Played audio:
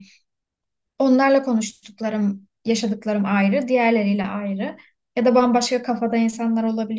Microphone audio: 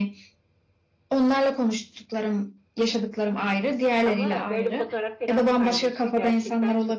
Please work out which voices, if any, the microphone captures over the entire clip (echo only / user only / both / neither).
both